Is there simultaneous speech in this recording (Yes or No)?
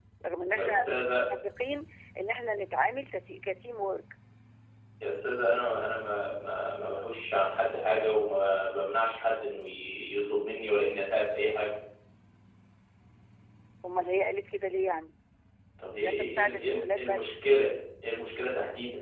Yes